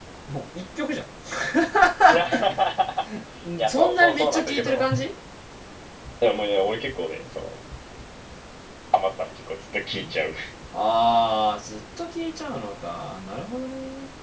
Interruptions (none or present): present